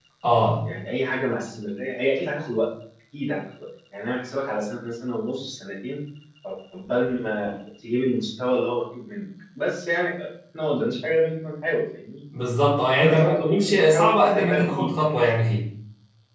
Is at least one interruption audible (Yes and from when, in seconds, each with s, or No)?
Yes, from 13.0 s